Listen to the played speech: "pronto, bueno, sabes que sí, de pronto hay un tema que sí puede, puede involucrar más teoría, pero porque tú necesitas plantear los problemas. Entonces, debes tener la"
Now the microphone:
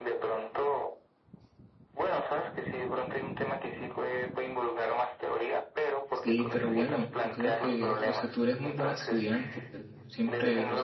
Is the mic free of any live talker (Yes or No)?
No